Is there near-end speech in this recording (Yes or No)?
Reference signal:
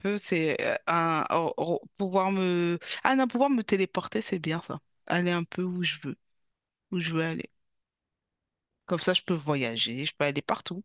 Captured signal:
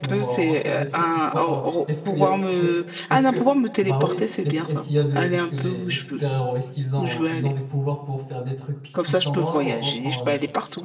Yes